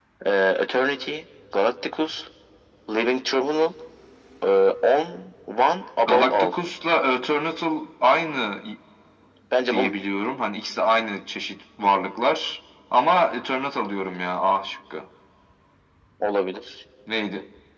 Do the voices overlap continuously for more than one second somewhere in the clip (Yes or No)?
No